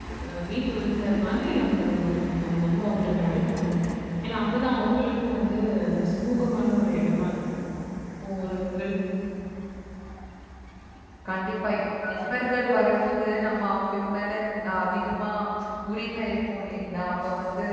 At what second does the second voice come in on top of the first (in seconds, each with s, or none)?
none